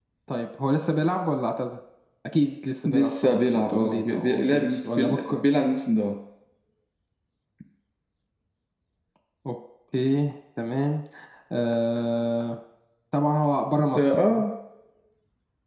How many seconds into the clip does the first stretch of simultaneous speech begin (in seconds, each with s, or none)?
2.9 s